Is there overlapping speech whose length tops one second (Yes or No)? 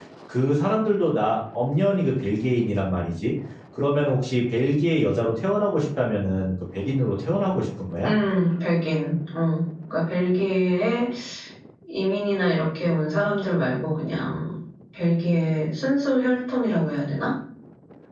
No